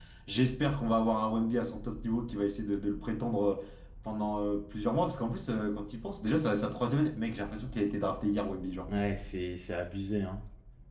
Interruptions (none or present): none